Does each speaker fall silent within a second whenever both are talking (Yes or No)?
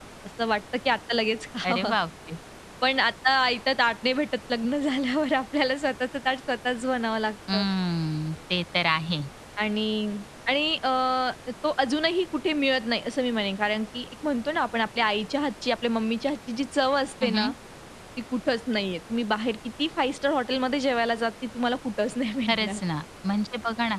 Yes